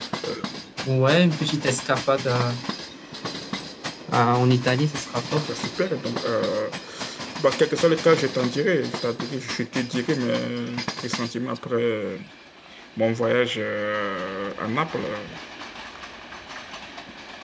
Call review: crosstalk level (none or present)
none